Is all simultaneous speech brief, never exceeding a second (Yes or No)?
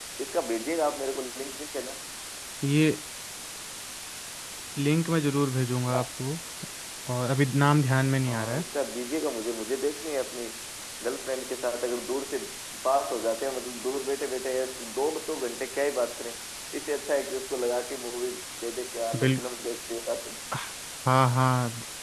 Yes